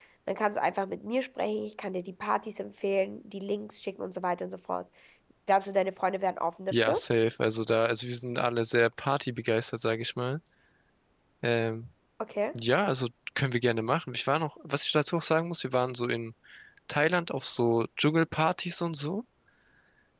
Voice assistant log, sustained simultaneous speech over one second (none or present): none